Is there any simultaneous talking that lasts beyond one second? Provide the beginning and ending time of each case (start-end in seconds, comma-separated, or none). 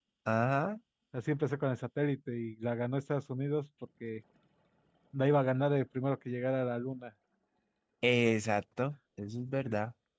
none